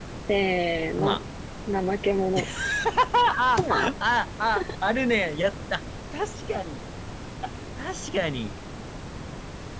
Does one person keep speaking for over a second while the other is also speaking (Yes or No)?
No